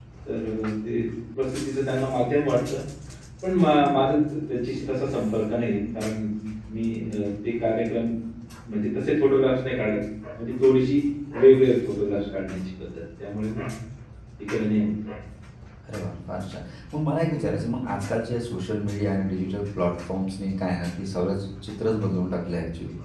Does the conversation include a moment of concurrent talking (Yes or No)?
No